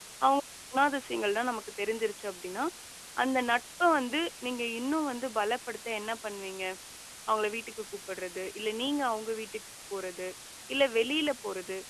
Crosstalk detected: No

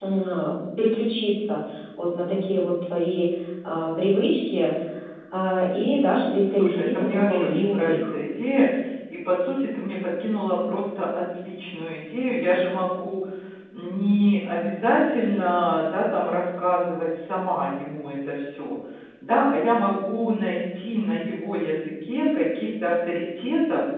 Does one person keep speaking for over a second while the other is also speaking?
Yes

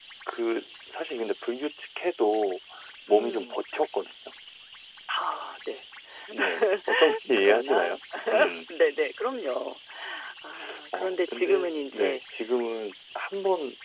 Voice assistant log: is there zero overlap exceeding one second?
No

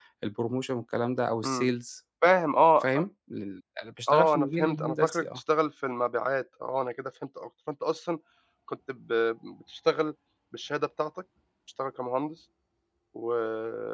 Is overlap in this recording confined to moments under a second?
No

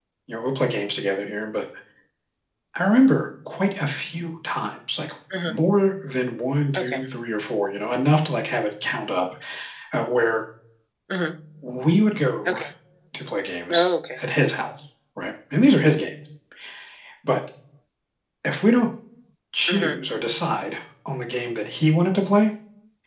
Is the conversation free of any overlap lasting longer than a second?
Yes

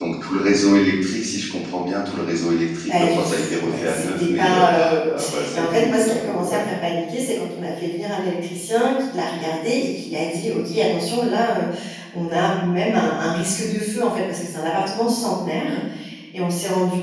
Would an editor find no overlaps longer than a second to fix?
No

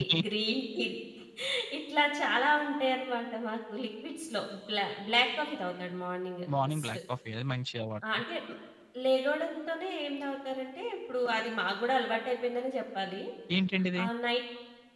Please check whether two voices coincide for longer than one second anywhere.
No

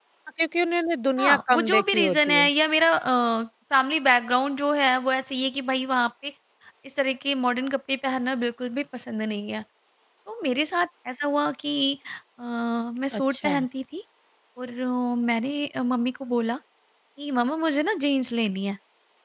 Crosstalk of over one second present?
Yes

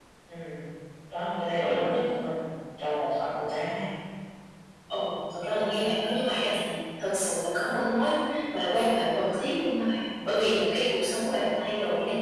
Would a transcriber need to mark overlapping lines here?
No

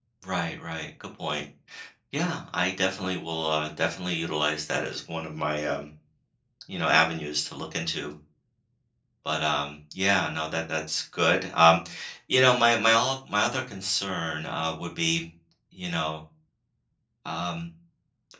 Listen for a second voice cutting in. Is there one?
No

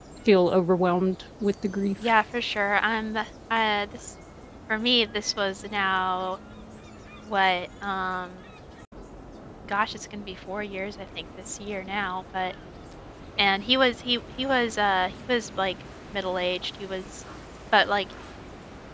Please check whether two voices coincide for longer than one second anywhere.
No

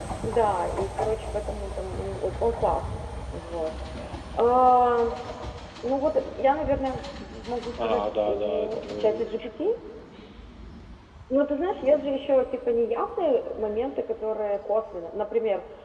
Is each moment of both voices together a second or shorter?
No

